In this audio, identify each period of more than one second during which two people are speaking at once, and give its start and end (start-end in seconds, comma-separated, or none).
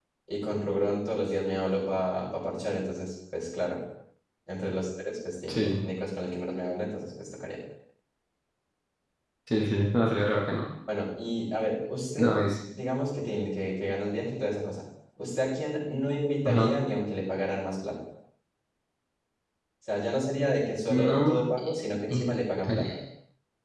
none